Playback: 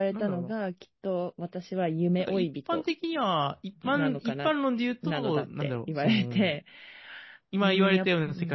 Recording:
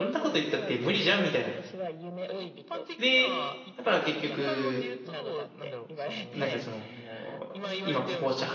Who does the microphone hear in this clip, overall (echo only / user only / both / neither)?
both